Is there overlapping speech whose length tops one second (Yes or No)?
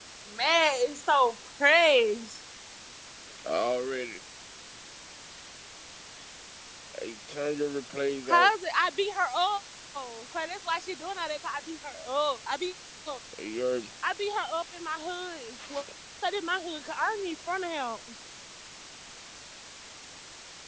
No